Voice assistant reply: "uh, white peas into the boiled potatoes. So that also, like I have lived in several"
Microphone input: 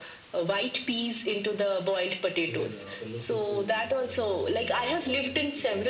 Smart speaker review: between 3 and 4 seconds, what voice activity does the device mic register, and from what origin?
both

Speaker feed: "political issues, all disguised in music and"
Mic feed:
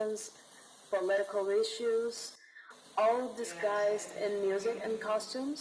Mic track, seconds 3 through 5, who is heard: both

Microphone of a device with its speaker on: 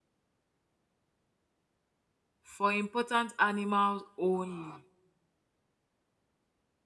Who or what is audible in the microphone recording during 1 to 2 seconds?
neither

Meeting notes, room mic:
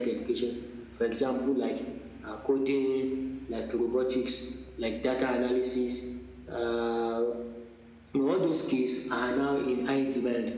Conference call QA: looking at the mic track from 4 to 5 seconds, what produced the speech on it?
echo only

